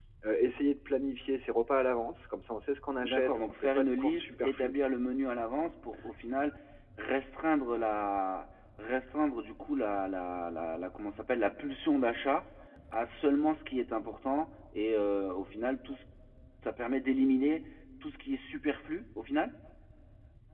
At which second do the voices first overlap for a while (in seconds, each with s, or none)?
3.0 s